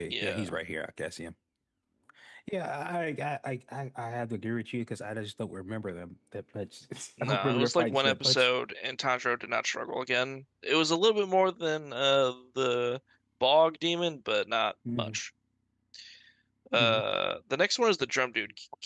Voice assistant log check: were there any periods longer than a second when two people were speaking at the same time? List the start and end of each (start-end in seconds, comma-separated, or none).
7.2-8.5